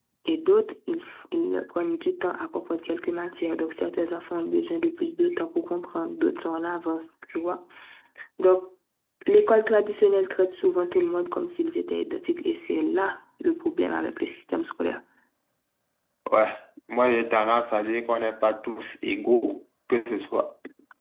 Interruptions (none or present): none